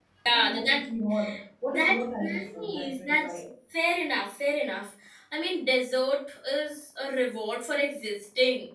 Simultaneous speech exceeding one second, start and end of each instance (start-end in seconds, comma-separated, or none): 1.7-3.4